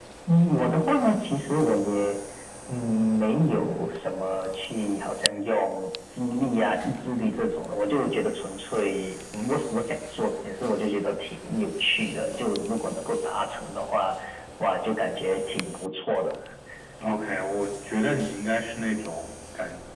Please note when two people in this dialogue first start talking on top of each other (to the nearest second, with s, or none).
none